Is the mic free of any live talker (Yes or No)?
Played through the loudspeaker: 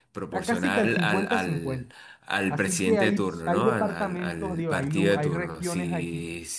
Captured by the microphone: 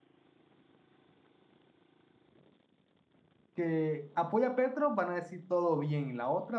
No